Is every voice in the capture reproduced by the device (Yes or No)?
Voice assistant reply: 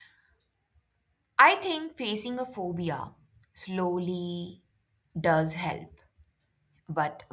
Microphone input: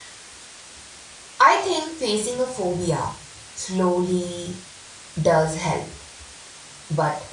Yes